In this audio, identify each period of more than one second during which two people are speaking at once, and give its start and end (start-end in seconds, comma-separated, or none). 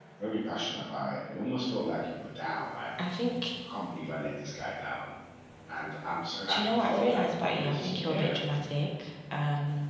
6.5-8.3